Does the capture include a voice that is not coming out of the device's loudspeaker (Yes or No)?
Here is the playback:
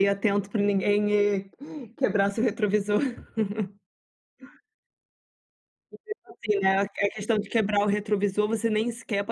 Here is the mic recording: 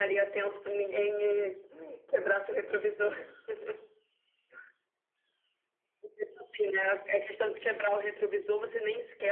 No